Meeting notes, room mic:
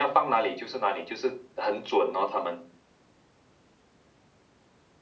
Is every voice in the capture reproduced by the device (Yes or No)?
Yes